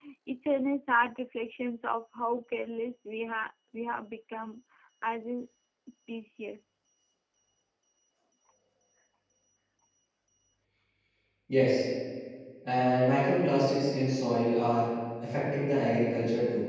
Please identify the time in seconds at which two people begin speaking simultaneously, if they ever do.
none

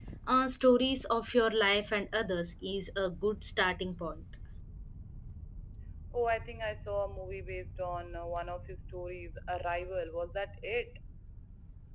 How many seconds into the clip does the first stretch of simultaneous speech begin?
none

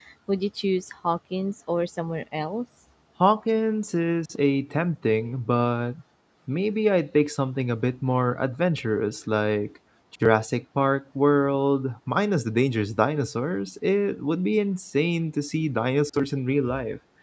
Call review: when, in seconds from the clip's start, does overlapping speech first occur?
none

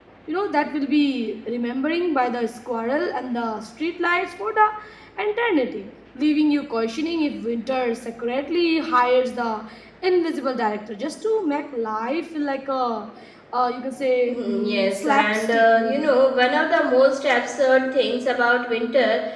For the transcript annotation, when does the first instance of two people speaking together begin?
14.3 s

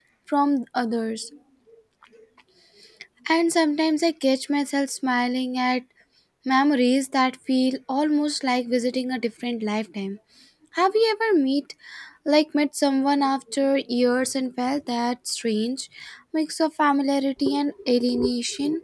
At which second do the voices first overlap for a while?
none

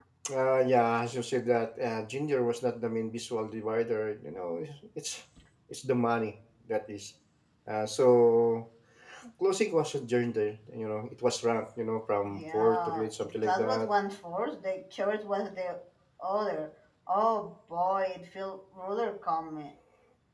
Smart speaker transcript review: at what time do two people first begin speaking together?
12.3 s

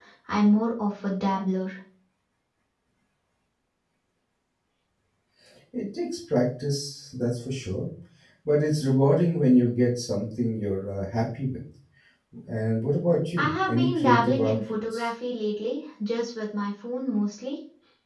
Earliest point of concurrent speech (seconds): 13.4 s

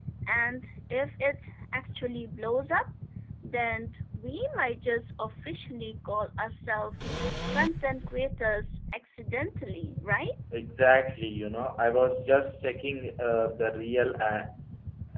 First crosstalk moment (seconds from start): none

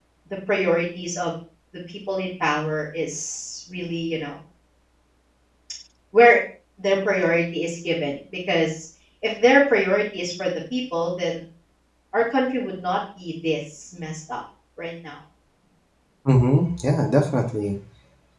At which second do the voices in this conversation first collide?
none

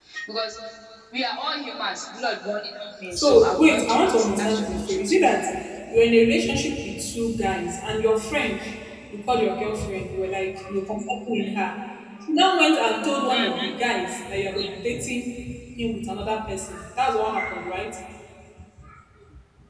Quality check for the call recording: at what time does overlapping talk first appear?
3.1 s

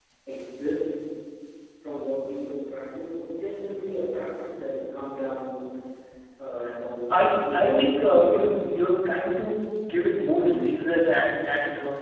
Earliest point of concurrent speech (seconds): 7.1 s

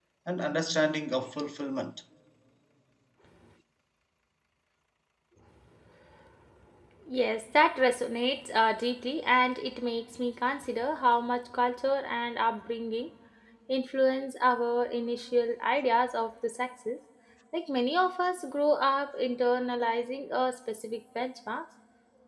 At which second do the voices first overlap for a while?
none

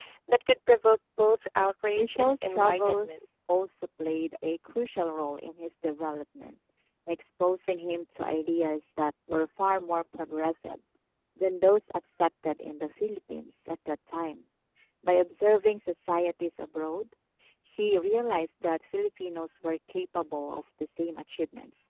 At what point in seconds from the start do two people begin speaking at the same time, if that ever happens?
2.0 s

